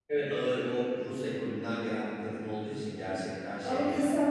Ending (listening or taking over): taking over